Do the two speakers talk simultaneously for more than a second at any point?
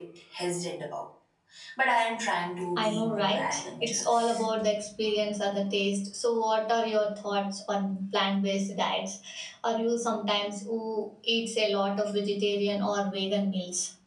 Yes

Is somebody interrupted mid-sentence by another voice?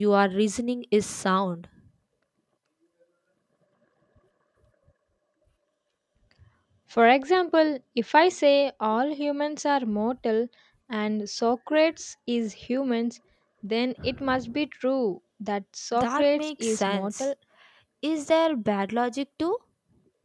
Yes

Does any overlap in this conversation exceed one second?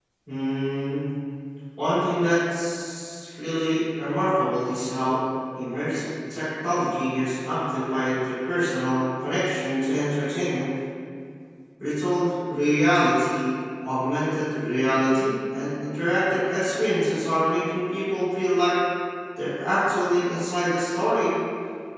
No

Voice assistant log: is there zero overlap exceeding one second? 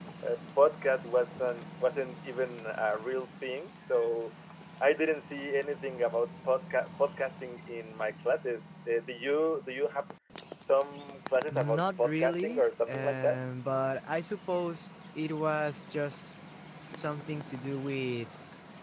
No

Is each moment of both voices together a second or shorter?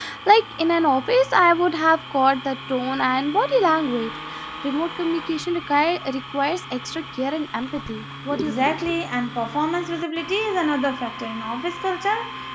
Yes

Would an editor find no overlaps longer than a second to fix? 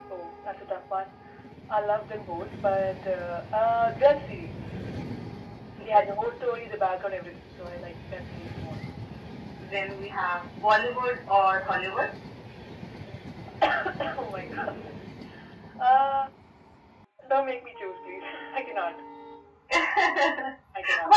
Yes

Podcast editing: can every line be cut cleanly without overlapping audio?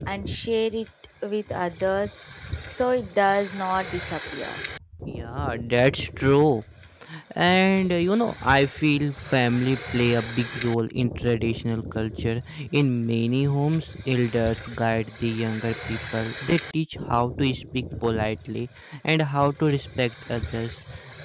Yes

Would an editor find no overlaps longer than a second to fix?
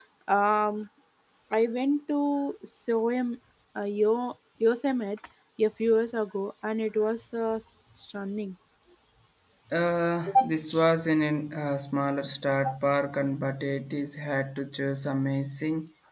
Yes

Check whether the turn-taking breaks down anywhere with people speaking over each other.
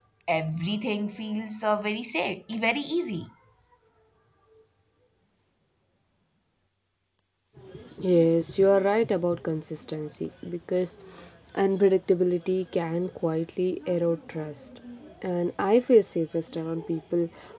No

